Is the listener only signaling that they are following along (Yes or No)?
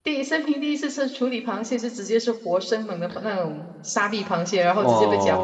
No